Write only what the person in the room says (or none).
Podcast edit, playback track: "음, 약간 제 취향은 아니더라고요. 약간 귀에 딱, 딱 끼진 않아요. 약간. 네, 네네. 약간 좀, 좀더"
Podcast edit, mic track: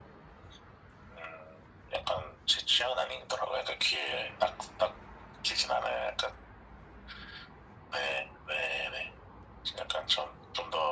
none